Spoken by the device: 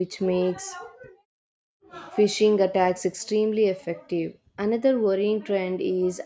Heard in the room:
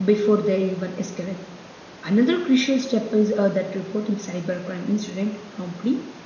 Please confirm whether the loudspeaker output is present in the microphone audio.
No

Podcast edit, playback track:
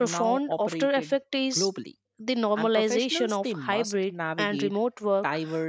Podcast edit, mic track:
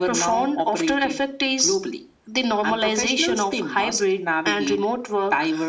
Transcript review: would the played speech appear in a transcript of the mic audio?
Yes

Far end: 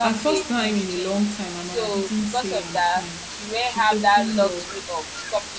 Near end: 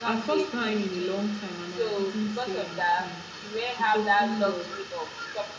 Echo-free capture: No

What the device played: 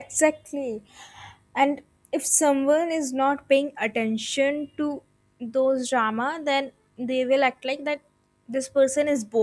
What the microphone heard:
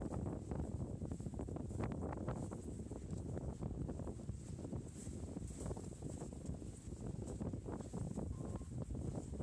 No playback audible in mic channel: Yes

